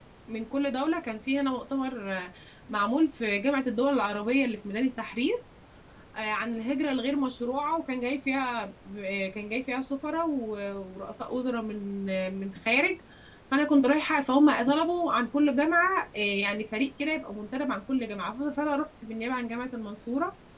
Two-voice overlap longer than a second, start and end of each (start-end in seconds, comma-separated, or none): none